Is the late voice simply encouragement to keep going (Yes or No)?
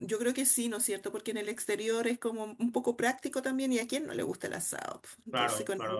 No